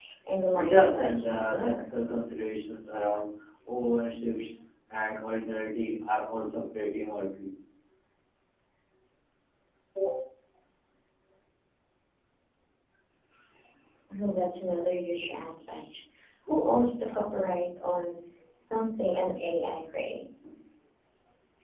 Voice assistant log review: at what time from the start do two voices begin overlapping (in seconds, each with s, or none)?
0.5 s